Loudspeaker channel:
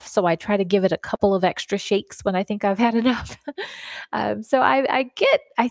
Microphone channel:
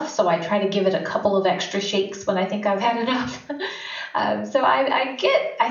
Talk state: echo only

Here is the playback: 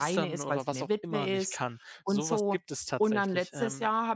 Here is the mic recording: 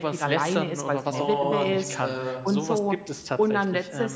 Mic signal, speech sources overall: both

